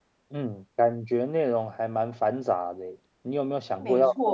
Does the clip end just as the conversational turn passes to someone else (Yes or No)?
No